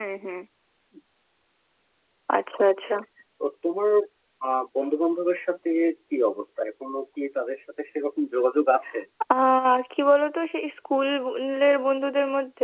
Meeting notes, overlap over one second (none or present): none